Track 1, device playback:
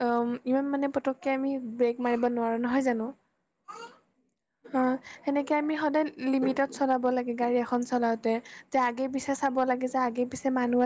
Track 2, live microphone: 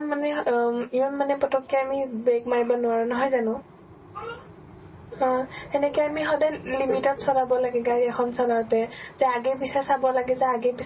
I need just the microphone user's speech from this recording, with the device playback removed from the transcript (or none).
none